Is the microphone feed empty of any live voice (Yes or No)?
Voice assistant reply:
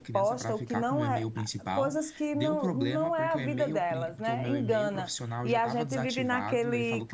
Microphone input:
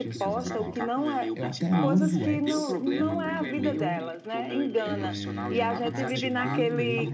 No